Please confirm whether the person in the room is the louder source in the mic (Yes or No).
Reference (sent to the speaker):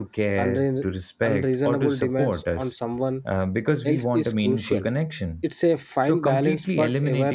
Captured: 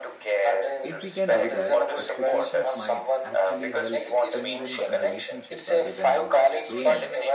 No